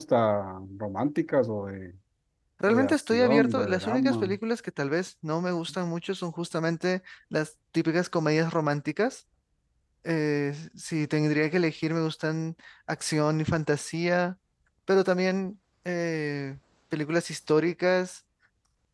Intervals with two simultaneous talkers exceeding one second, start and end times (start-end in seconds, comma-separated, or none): 2.7-4.3